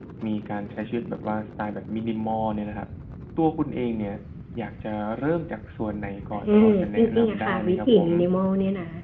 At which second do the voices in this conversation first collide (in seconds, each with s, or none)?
6.3 s